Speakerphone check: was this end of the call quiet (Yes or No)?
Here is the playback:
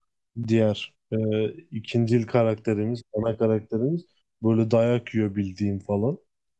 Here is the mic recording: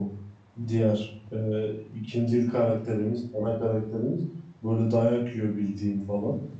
Yes